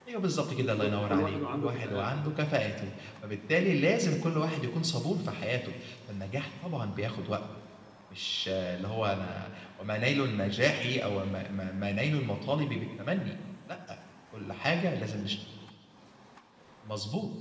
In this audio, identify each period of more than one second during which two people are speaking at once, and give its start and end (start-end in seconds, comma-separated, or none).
0.5-2.3